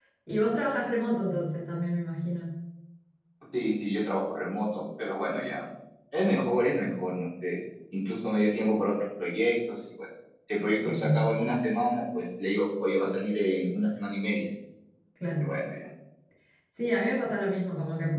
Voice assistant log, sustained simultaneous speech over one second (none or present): none